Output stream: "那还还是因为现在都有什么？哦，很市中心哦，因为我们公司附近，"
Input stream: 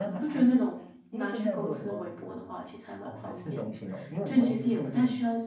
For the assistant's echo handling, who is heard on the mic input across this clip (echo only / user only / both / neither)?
both